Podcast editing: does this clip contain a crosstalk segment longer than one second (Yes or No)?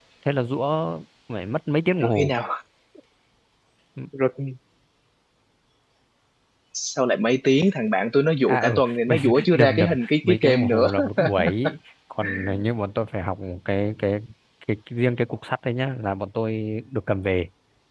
Yes